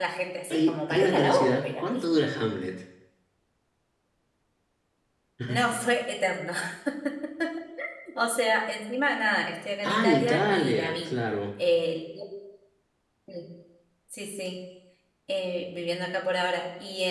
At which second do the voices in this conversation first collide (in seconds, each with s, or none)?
0.5 s